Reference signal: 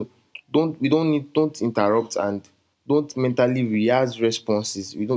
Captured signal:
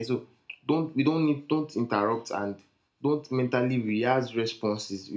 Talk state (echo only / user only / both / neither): echo only